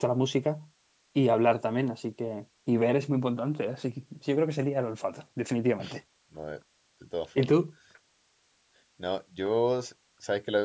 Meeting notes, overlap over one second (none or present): none